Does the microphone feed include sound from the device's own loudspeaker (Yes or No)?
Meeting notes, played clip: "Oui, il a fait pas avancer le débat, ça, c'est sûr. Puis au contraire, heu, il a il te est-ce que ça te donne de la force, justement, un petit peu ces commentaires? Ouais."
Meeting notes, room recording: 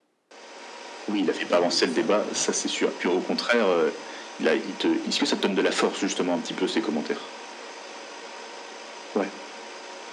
Yes